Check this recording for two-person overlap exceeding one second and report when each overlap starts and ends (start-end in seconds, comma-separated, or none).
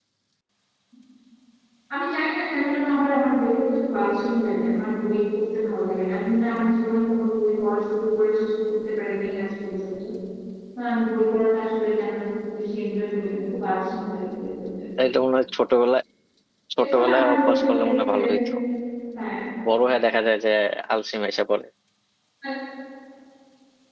16.8-18.1